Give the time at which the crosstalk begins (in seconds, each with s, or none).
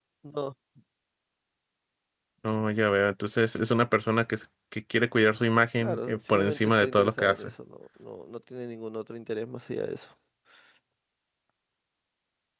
5.8 s